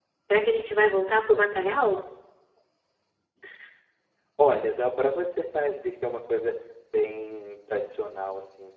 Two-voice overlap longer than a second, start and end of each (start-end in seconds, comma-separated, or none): none